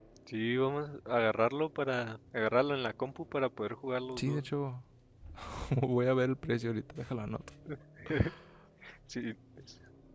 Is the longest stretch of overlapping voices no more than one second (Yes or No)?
Yes